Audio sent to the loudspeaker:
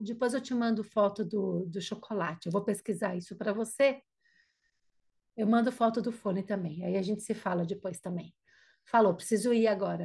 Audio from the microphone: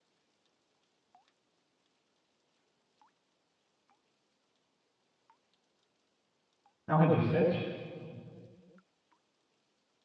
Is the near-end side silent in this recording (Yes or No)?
No